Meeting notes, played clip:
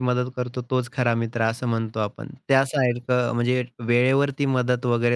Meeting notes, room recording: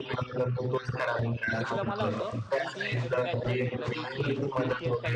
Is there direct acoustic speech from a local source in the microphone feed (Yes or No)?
Yes